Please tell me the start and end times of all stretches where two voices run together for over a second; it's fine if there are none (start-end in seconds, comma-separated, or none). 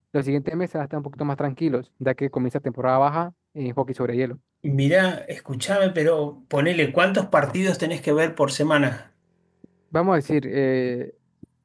none